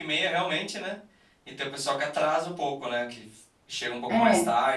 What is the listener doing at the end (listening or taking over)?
listening